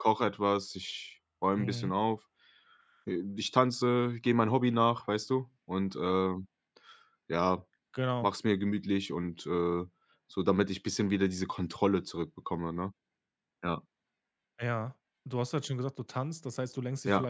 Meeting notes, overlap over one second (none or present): none